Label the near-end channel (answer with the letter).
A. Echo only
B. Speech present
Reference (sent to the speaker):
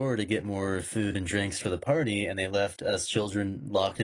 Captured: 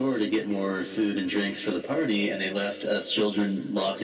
A